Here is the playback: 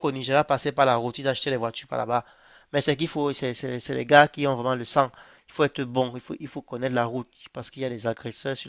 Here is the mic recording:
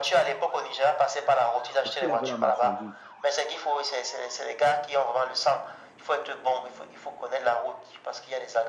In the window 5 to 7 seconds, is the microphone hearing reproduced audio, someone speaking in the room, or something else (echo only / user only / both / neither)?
echo only